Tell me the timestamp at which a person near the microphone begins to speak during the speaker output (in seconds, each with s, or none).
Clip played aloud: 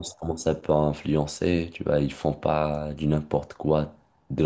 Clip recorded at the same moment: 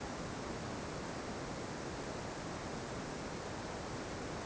none